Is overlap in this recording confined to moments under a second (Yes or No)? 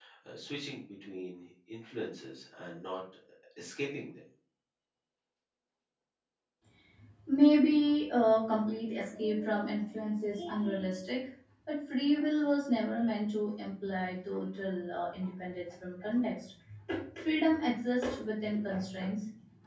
Yes